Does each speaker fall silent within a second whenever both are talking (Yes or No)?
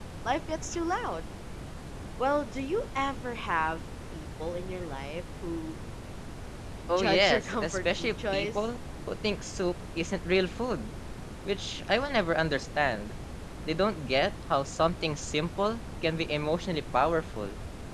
No